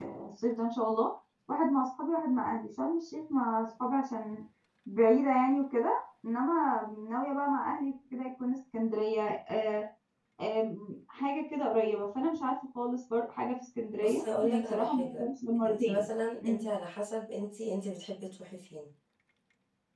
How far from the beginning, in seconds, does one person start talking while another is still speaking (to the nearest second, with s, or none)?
14 s